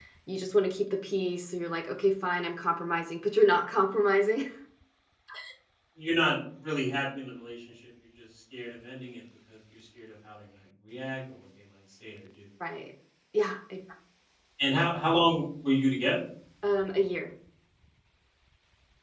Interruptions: none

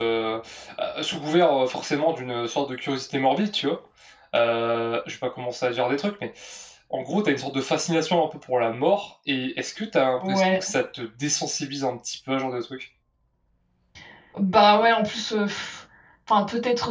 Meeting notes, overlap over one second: none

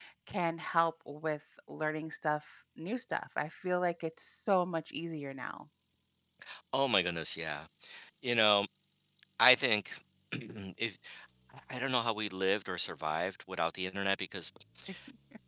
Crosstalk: none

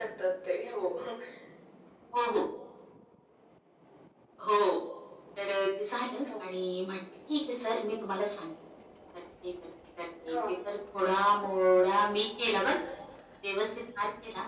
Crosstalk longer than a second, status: none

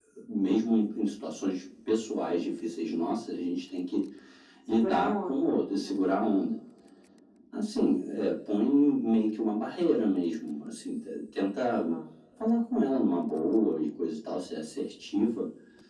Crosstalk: present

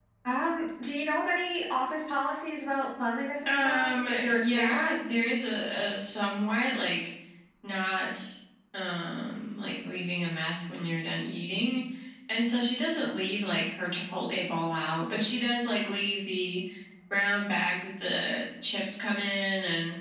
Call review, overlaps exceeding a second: present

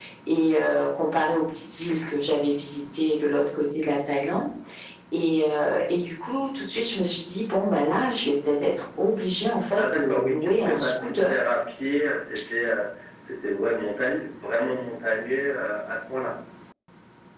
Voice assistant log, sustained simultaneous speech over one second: present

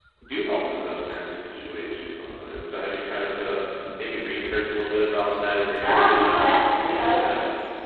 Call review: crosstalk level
present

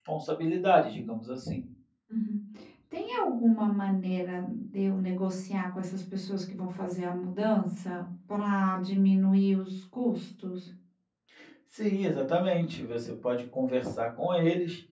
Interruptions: none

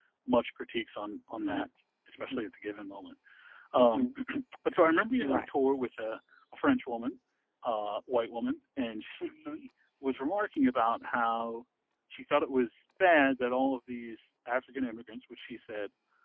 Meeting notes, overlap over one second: none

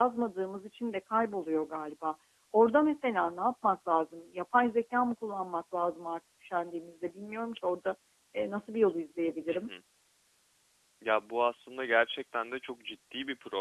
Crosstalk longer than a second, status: none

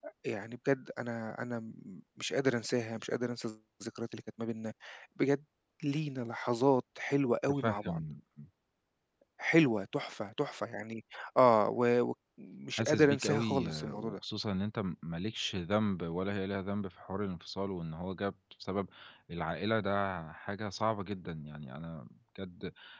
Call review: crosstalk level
present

